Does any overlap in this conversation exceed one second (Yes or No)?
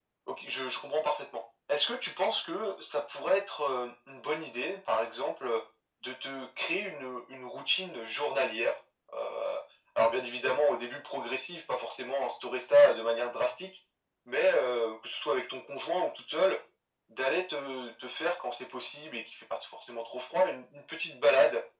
No